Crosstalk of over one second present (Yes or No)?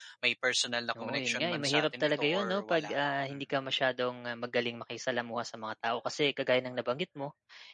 Yes